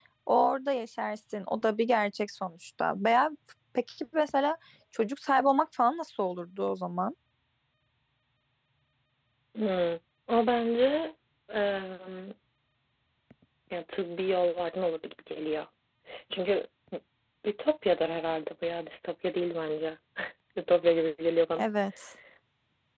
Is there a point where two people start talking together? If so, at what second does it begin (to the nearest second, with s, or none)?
none